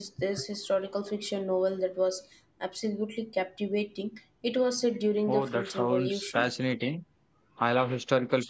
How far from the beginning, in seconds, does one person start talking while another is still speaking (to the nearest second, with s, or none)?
5 s